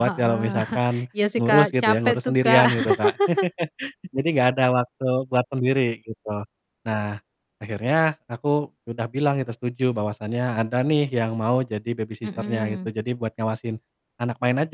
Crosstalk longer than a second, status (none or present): present